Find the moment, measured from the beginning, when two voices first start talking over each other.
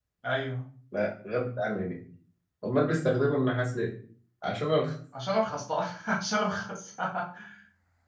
none

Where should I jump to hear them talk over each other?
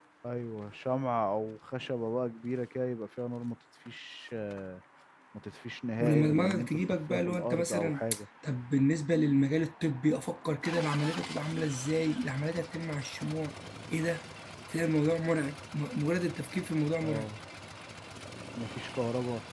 6.0 s

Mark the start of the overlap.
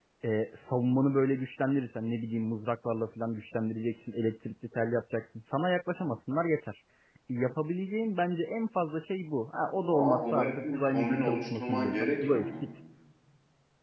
9.9 s

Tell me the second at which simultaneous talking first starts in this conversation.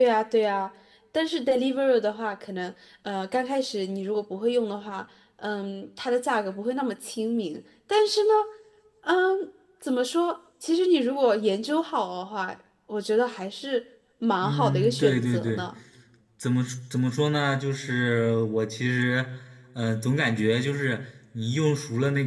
14.4 s

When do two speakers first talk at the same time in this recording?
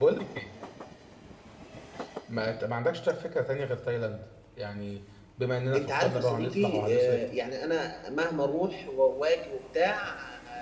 5.7 s

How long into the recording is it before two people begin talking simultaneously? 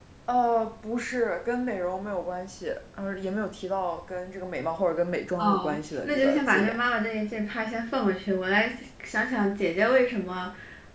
5.4 s

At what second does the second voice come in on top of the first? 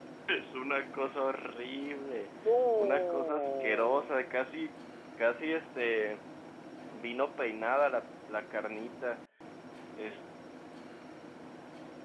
2.8 s

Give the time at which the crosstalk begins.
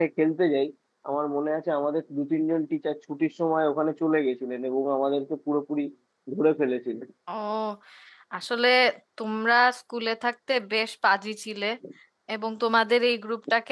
none

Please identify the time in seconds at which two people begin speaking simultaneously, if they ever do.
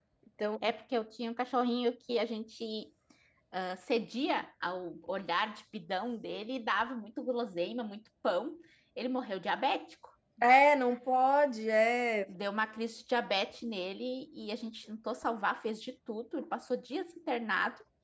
none

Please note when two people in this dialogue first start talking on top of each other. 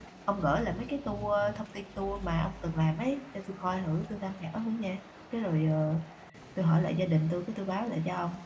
none

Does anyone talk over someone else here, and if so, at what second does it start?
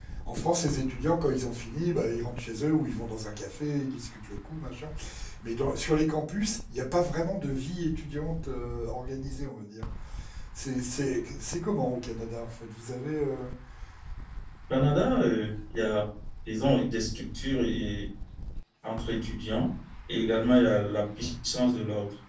none

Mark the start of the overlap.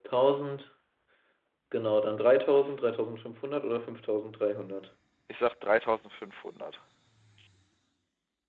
none

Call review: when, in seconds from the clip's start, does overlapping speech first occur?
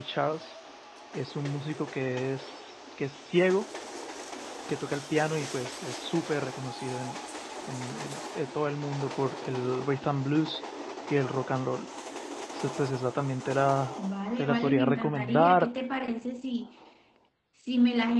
14.4 s

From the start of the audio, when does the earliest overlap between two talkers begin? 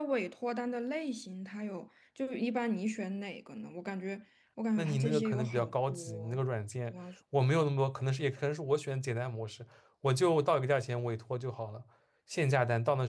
4.8 s

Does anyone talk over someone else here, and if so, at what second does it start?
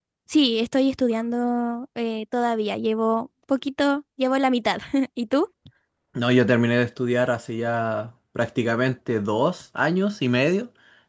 none

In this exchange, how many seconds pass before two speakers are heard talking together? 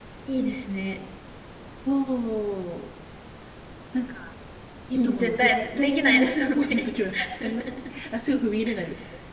4.9 s

